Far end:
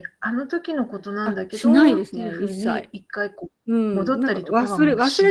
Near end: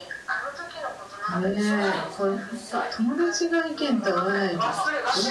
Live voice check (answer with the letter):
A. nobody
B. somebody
B